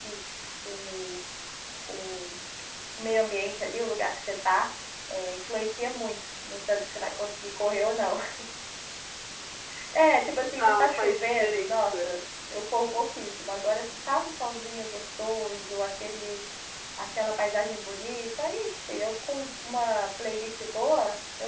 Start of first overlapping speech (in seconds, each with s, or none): 10.6 s